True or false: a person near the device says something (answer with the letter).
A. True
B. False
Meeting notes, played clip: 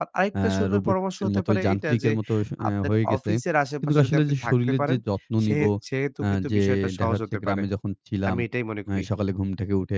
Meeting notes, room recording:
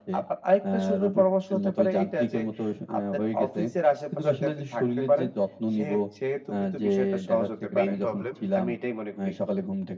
A